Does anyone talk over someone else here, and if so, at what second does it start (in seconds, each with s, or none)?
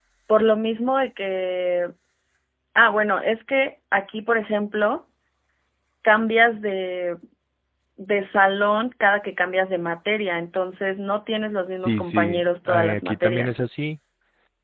11.7 s